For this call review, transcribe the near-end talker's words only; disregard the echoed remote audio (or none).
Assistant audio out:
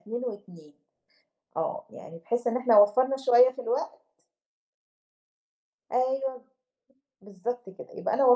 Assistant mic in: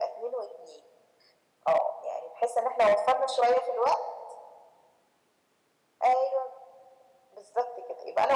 none